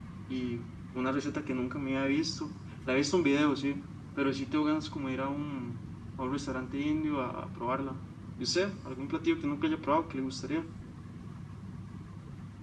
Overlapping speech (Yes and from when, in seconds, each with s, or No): No